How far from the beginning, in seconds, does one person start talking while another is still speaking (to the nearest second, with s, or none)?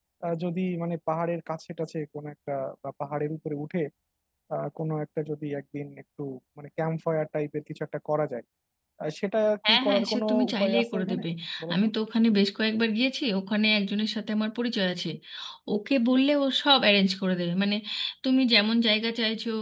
10 s